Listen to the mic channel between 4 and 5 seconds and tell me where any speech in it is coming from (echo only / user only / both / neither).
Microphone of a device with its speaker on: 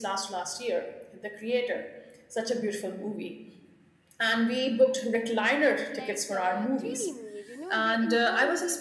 echo only